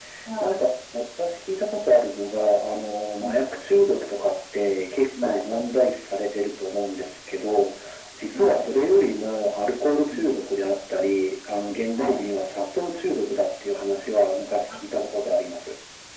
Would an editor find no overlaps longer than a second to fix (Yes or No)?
Yes